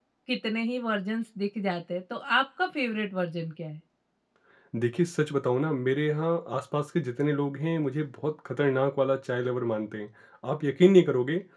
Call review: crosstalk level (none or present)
none